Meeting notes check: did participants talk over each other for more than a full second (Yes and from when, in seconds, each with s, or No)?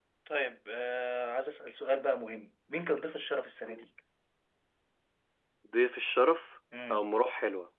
No